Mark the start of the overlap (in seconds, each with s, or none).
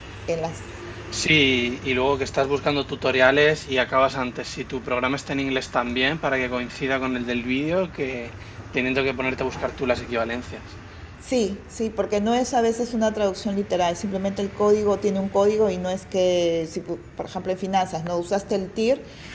none